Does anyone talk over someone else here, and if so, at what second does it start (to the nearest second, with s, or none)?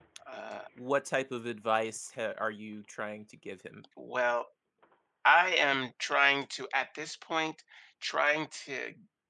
none